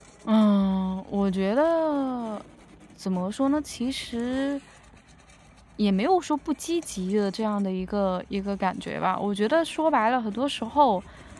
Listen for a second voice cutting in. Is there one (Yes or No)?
No